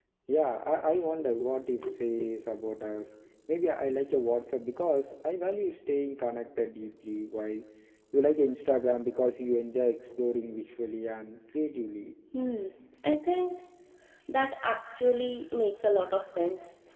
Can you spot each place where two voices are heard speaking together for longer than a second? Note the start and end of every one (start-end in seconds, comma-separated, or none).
none